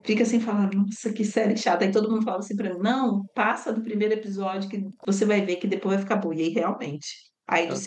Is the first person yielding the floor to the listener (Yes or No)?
No